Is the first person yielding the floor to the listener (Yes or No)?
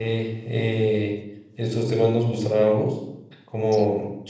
No